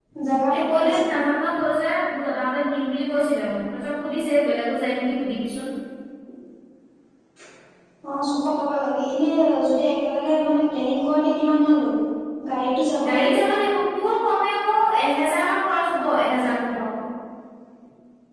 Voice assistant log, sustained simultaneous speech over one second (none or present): none